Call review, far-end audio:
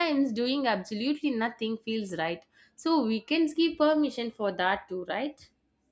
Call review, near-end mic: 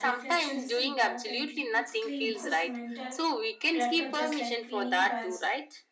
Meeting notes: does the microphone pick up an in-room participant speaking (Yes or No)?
Yes